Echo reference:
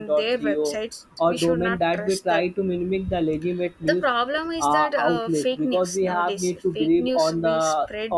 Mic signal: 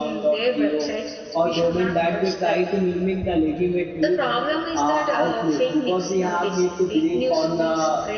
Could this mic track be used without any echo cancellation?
No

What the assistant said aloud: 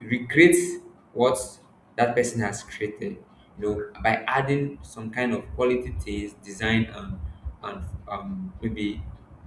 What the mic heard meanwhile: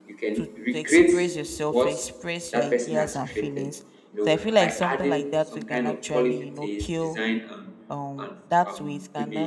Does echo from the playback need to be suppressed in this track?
Yes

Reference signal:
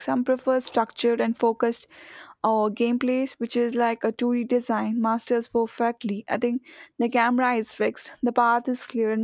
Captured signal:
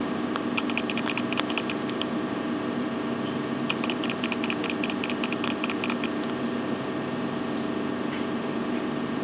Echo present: No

